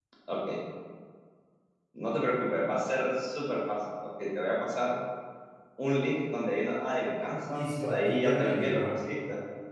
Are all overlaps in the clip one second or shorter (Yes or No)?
No